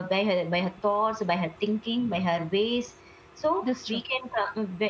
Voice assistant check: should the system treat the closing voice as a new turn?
No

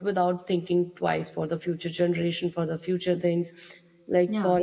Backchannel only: Yes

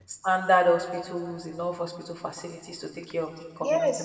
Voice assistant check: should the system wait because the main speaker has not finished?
No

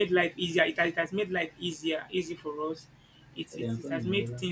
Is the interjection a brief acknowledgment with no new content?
Yes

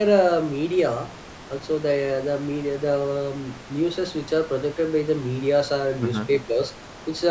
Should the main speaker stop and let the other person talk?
No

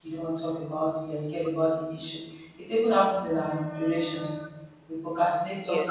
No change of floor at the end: Yes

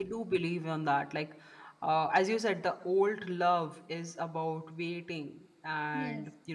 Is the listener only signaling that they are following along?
Yes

